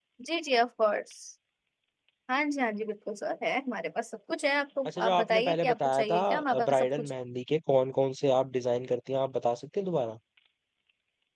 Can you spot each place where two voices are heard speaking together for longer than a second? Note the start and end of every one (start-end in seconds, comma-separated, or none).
4.9-7.2